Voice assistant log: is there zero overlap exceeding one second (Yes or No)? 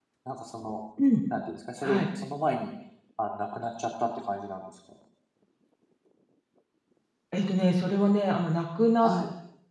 Yes